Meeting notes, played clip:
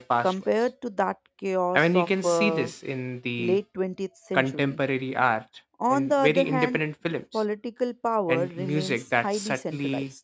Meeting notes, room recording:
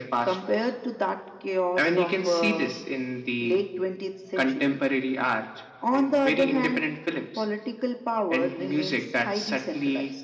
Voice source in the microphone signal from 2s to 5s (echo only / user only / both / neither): echo only